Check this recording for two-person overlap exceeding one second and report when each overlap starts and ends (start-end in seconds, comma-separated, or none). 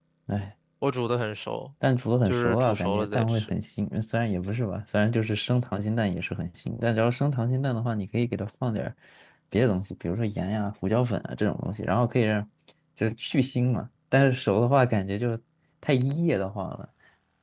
2.2-3.5